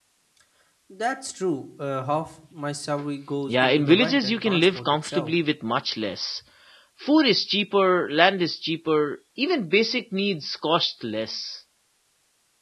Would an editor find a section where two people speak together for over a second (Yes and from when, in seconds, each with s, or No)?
Yes, from 3.5 s